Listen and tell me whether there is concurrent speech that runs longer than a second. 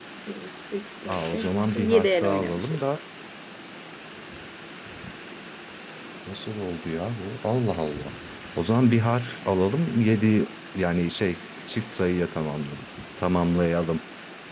Yes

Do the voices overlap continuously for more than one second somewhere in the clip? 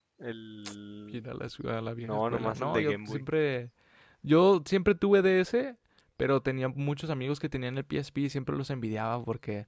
Yes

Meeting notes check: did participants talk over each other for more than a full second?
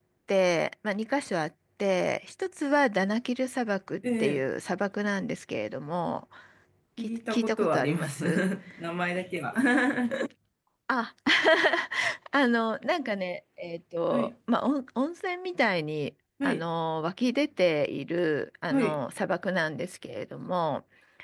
Yes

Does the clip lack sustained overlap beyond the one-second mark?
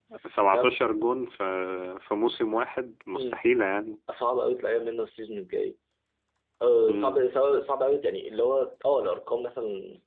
Yes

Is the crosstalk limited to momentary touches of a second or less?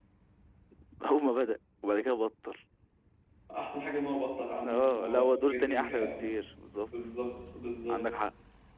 No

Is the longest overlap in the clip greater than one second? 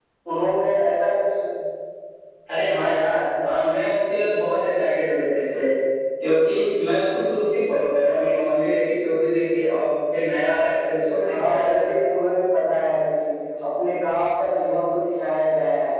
No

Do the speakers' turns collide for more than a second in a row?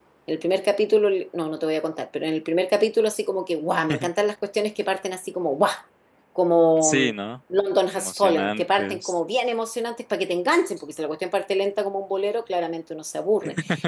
Yes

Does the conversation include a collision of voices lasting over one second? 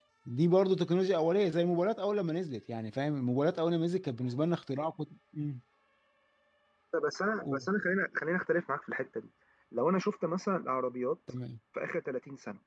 No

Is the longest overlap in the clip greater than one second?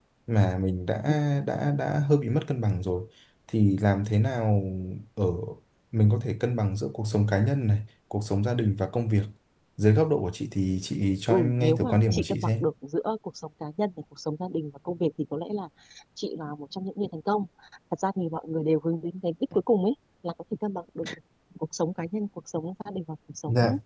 Yes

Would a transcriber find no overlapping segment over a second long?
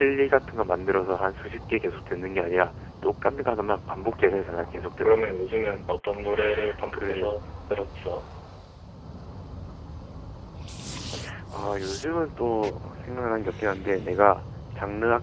Yes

